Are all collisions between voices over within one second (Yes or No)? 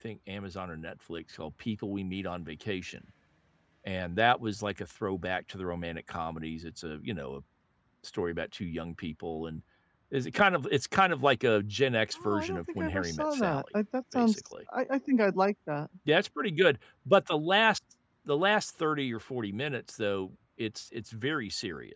No